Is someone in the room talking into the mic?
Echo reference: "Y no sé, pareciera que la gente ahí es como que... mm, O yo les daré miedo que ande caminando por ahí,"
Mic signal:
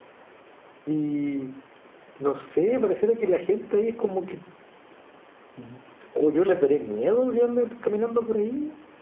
No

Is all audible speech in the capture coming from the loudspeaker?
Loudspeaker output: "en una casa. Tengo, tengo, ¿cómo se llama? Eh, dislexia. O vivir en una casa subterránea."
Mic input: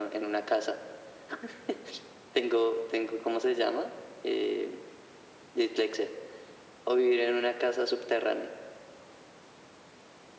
Yes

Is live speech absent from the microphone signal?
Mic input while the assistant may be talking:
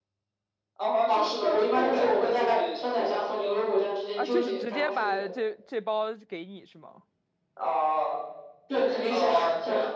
No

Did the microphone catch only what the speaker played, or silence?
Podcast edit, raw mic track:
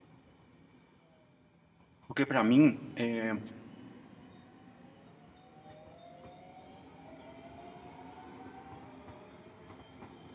No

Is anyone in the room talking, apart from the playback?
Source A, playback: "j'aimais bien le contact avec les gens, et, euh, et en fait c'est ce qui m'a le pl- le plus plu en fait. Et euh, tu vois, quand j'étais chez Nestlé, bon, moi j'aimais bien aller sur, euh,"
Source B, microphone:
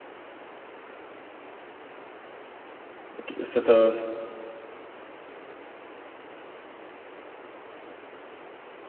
Yes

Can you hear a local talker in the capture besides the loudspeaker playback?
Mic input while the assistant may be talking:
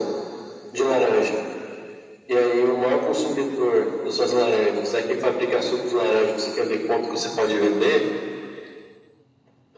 No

